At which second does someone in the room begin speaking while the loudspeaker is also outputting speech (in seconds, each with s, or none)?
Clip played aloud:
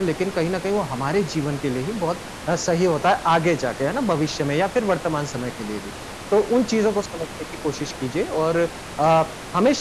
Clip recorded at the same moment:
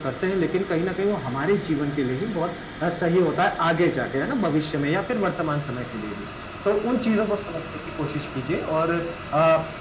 none